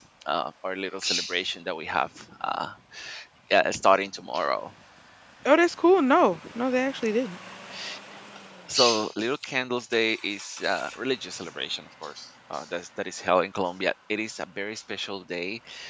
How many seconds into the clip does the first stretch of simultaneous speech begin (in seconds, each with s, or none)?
none